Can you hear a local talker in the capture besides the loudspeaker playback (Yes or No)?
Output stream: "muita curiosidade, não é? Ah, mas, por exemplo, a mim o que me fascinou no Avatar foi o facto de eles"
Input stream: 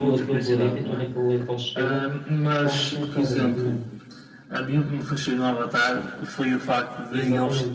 Yes